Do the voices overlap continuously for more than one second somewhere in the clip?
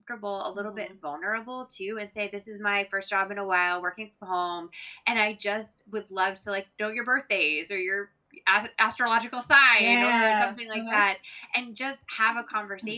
Yes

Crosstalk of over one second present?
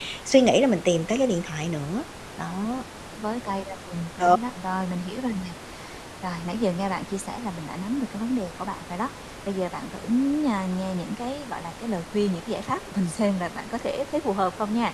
No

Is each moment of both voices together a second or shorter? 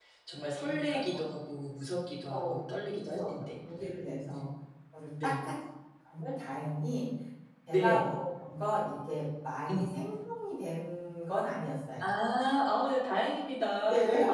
No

